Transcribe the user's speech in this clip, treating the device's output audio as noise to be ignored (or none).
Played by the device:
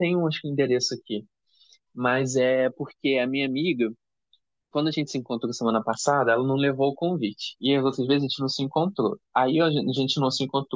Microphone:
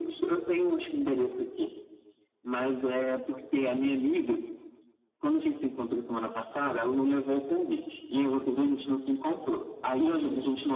none